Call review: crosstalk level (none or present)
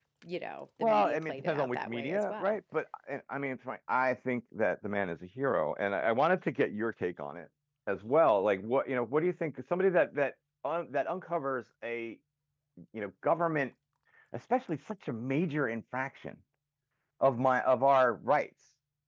present